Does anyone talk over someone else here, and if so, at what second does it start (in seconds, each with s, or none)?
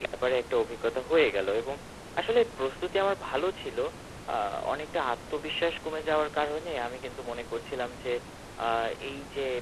none